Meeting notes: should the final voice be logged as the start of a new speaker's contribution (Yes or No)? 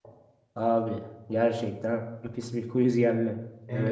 Yes